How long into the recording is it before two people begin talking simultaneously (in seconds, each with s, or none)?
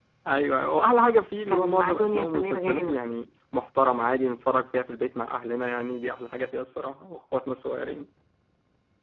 1.5 s